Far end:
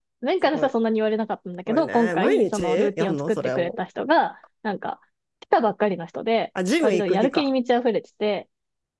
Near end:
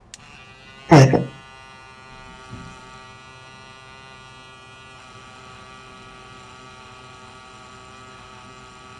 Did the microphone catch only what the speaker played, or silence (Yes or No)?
No